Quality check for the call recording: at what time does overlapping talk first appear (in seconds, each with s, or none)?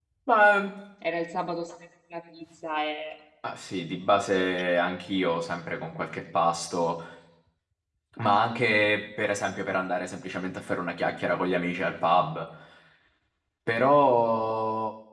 none